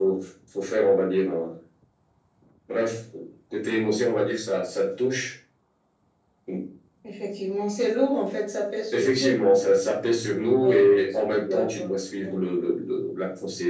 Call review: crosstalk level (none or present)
present